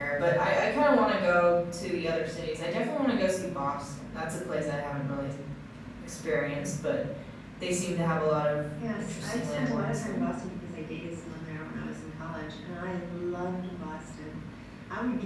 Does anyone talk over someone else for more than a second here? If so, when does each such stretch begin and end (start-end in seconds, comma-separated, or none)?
9.0-10.2